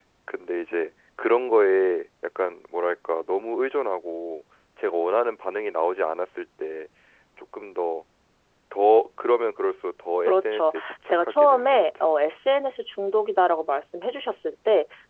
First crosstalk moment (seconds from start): 10.3 s

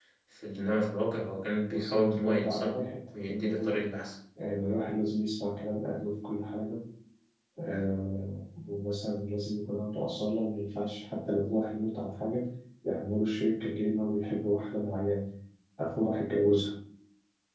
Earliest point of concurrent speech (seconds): 1.7 s

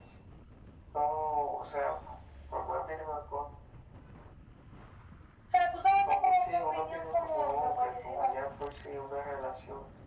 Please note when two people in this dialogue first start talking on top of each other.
6.0 s

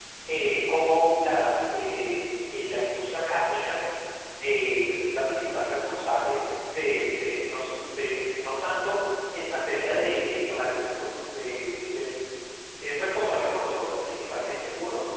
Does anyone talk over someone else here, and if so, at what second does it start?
none

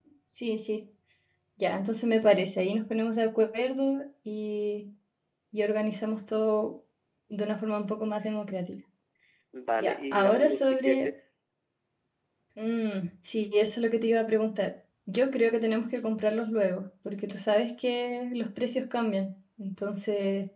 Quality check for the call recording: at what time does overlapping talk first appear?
9.8 s

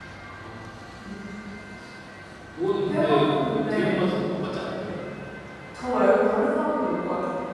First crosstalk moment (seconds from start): 2.9 s

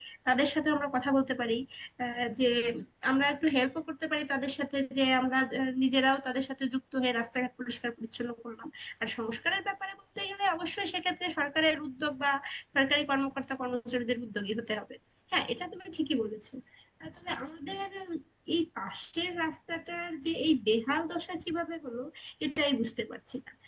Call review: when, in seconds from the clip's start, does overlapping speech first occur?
none

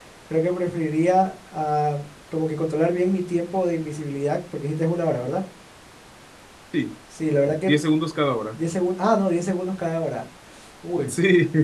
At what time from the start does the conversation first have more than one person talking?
none

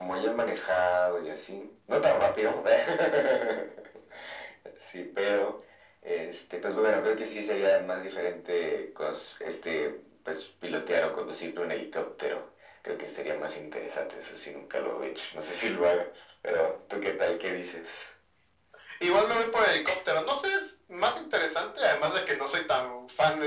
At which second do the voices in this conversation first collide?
none

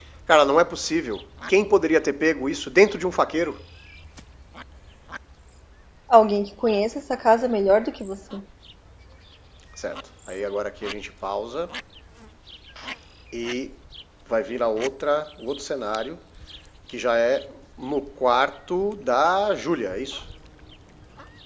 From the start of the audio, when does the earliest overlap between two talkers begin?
none

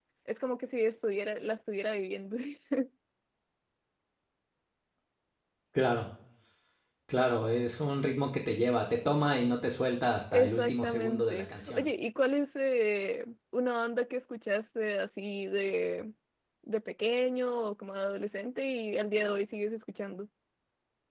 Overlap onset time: 10.3 s

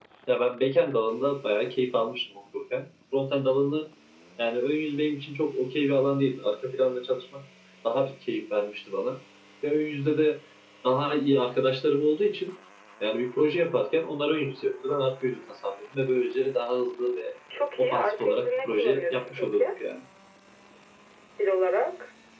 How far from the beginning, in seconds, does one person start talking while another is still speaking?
17.8 s

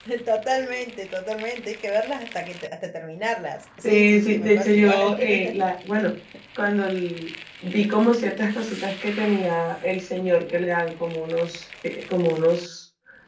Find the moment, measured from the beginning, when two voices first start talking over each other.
3.8 s

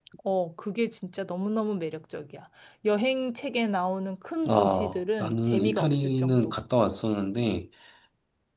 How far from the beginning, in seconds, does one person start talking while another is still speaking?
4.4 s

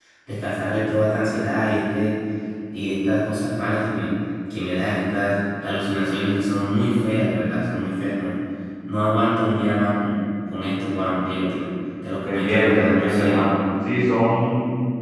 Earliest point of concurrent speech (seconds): 12.2 s

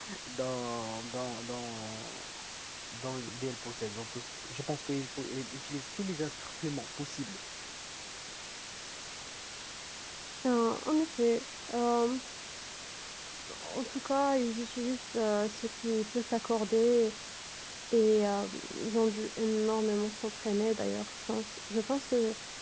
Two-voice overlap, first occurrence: none

